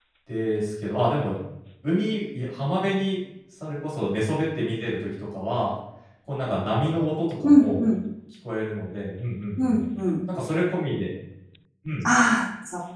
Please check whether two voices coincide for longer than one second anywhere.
No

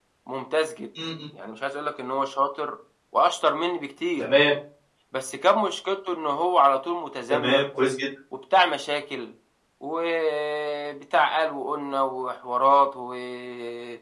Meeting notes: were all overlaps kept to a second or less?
Yes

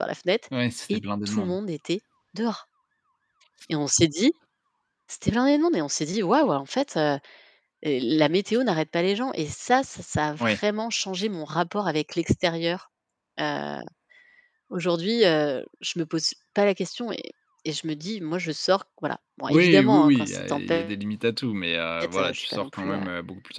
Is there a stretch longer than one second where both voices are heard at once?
Yes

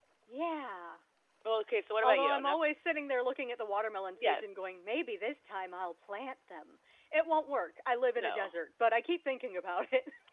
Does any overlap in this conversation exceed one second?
No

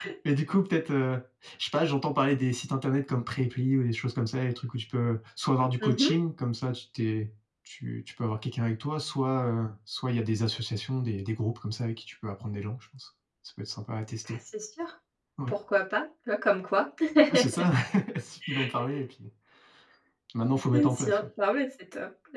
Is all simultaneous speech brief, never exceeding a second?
Yes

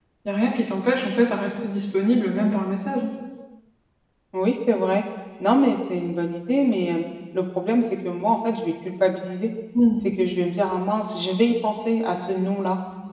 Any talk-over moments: No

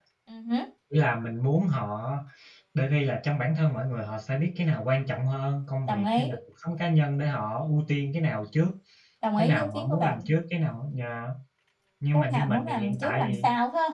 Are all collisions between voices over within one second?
No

